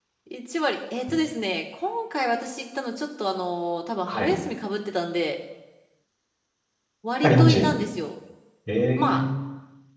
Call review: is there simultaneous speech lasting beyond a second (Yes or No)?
No